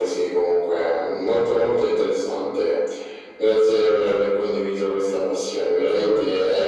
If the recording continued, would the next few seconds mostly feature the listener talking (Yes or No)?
No